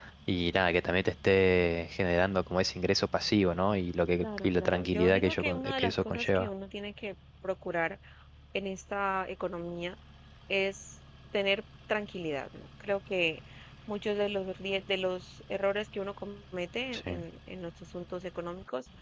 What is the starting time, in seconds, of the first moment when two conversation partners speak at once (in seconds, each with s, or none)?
4.2 s